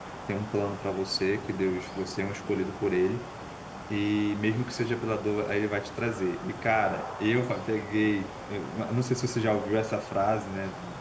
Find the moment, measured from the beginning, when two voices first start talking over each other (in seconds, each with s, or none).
none